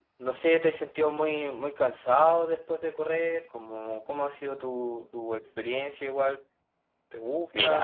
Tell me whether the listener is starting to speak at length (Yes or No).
Yes